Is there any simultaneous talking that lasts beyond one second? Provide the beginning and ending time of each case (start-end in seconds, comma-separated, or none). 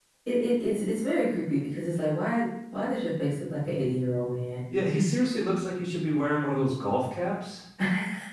none